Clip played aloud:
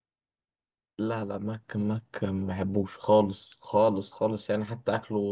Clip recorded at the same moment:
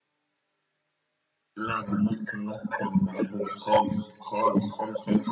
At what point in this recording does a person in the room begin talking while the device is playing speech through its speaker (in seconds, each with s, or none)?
none